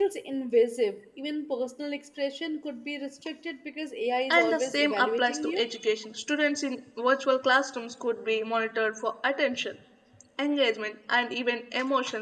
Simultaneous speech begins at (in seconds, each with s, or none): 4.3 s